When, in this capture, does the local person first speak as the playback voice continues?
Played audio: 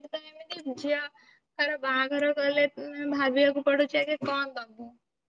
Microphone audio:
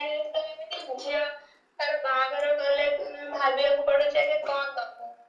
none

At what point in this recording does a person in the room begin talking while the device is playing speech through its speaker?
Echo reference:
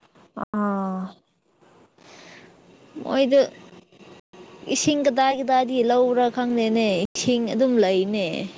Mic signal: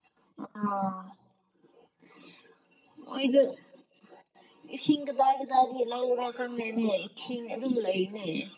none

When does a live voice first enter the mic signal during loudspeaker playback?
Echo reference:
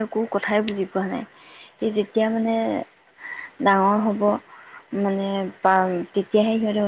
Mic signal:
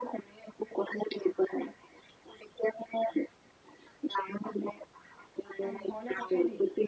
5.6 s

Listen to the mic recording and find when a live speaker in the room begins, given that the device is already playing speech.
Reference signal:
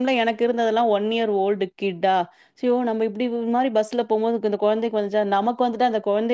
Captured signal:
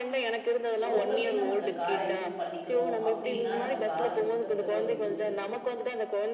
0.9 s

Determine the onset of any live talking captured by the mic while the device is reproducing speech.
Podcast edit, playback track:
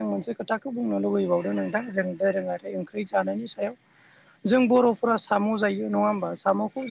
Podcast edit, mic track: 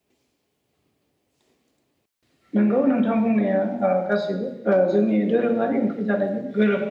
2.5 s

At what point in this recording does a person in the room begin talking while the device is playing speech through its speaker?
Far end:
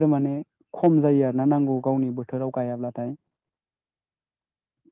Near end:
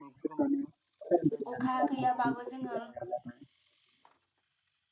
1.5 s

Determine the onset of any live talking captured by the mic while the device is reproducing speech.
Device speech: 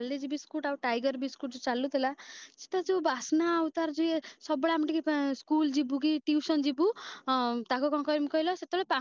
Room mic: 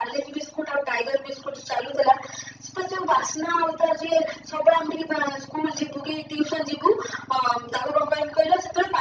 none

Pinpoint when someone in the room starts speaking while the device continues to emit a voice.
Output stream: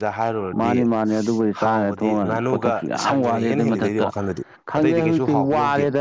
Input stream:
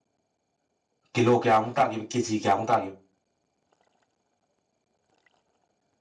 1.1 s

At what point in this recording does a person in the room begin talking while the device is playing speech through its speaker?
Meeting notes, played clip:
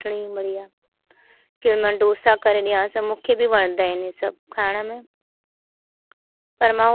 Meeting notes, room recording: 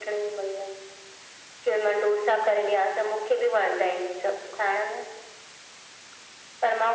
none

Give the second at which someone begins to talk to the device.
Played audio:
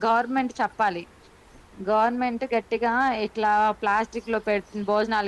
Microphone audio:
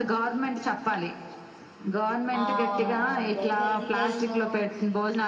2.4 s

